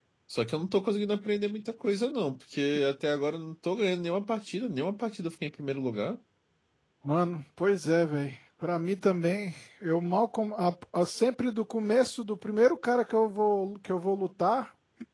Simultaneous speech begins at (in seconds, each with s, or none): none